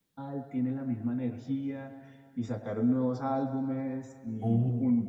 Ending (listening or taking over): listening